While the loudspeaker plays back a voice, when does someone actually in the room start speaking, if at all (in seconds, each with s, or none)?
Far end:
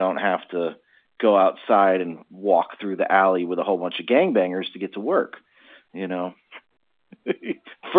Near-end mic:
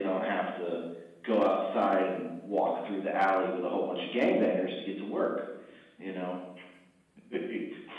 none